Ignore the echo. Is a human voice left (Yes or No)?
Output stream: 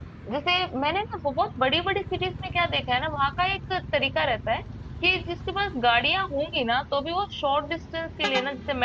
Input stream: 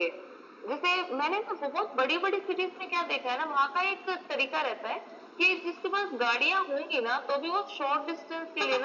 No